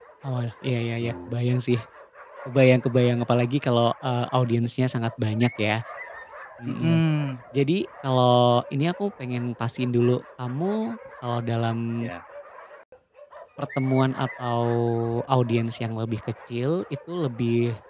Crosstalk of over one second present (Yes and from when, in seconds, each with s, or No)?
No